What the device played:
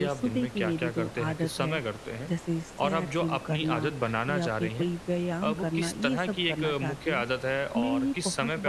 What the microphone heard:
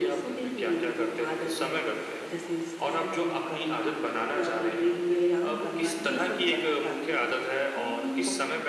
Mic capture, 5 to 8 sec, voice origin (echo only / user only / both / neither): echo only